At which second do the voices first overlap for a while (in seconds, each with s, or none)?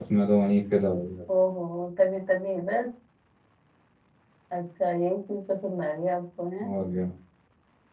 none